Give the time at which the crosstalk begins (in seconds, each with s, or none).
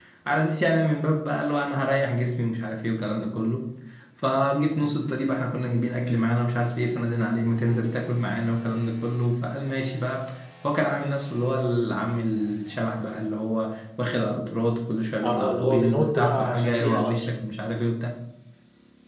15.2 s